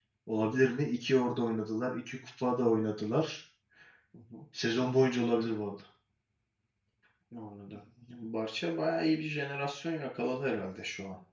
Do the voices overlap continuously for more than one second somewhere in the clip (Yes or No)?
No